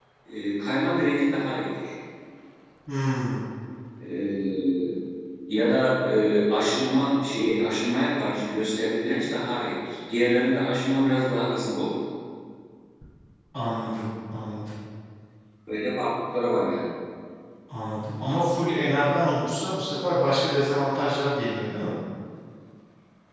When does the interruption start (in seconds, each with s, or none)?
none